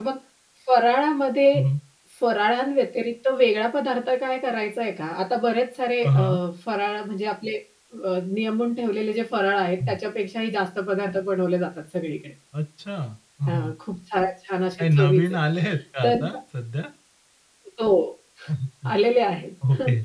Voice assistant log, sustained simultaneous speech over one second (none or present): none